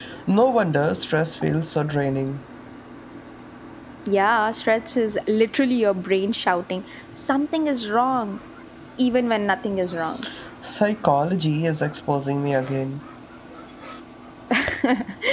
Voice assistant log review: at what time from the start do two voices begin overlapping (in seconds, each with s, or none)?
none